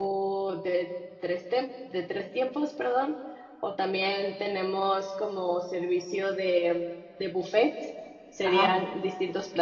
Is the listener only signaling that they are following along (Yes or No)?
Yes